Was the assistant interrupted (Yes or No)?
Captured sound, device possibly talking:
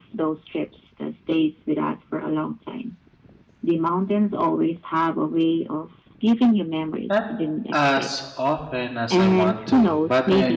Yes